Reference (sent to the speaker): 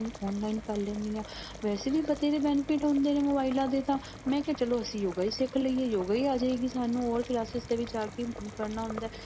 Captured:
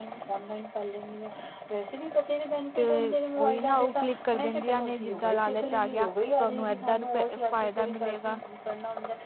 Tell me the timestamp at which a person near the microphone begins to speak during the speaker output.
2.7 s

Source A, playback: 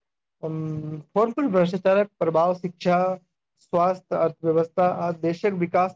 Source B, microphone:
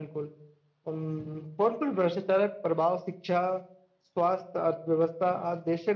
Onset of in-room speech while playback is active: none

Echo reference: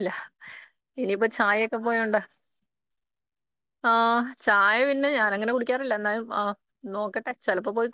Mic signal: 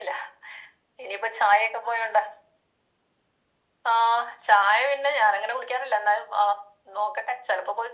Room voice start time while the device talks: none

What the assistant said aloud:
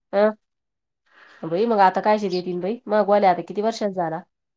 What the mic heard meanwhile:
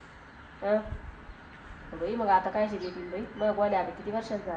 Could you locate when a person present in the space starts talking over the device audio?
none

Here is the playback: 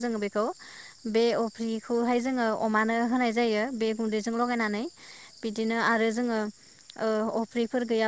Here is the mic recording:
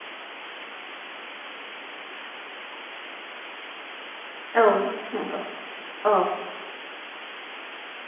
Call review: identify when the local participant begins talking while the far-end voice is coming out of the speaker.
4.5 s

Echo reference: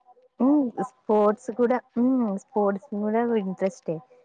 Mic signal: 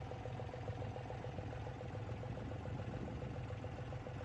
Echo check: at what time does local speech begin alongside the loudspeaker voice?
none

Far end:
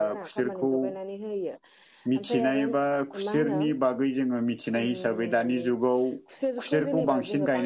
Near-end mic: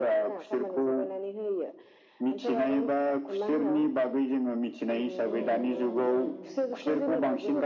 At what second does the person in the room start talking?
5.3 s

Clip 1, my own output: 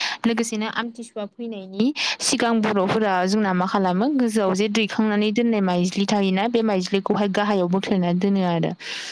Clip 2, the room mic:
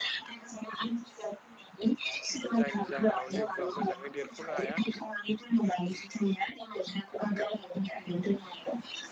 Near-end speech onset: 2.6 s

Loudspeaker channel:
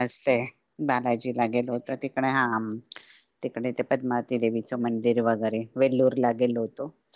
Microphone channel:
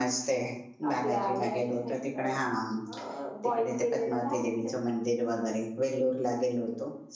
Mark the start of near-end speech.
0.9 s

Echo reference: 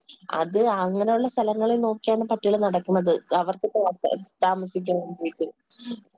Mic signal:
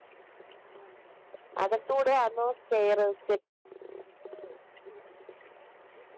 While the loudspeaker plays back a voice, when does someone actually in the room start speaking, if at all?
1.6 s

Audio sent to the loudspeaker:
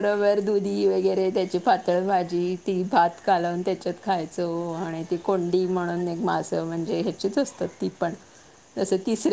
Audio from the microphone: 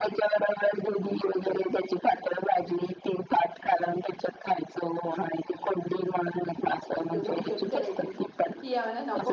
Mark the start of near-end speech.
7.0 s

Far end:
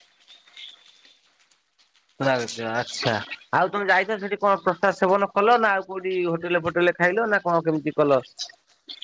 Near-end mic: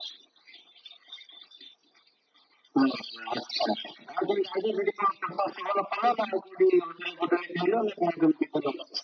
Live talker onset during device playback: none

